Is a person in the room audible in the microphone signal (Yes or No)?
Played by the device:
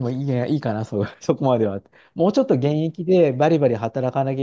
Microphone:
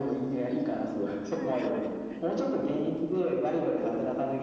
Yes